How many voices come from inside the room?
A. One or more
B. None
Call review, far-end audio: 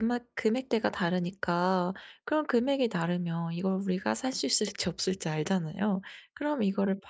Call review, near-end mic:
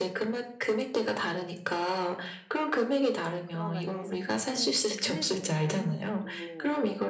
A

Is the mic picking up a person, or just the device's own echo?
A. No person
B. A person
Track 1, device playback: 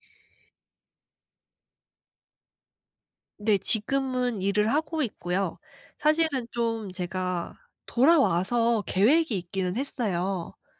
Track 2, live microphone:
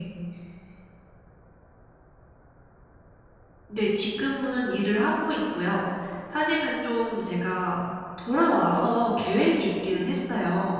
B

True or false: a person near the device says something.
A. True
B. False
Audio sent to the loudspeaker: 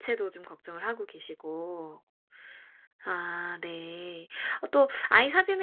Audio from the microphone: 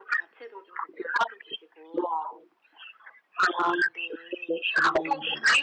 A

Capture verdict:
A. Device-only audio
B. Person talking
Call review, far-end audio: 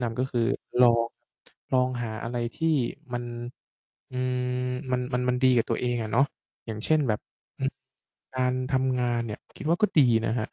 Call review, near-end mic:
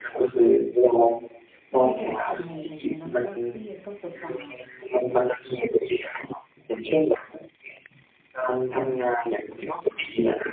B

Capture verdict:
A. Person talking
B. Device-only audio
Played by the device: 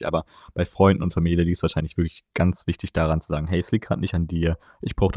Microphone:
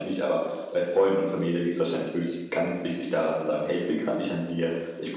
B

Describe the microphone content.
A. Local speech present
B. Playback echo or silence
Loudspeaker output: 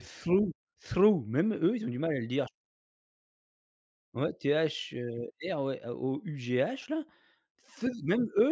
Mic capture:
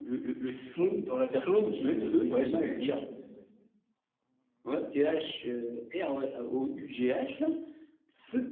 A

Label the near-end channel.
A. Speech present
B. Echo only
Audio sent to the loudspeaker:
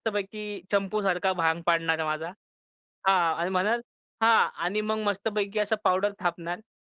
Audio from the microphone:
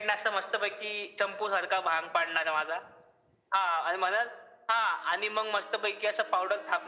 B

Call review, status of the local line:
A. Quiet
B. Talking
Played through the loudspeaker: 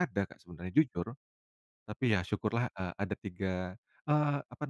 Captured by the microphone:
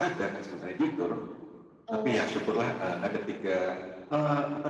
B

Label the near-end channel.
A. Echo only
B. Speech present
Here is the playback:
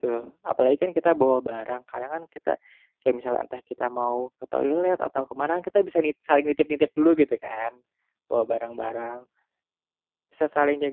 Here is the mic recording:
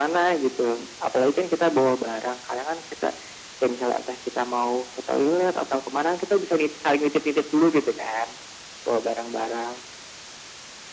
A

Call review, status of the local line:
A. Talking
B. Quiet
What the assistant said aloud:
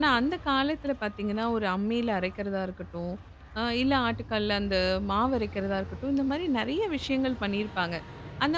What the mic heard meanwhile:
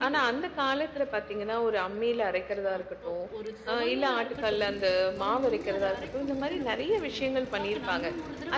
A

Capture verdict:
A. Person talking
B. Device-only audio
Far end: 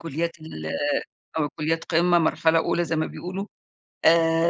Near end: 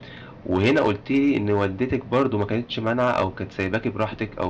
A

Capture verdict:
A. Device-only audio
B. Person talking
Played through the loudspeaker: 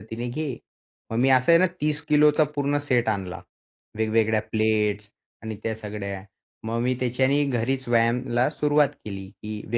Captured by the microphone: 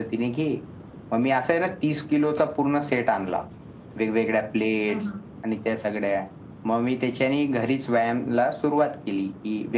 B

